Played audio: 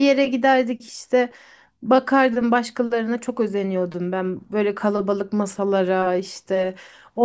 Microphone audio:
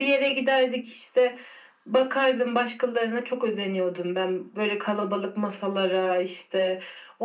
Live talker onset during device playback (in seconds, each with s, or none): none